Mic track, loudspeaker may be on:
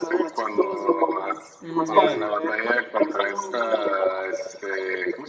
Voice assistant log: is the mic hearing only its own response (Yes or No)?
No